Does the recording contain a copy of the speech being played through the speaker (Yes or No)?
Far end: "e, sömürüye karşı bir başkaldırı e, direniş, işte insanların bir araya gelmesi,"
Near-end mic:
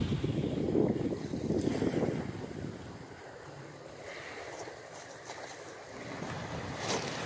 No